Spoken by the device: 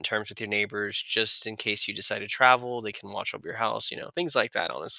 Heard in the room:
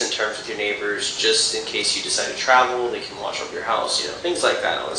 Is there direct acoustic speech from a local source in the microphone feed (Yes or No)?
No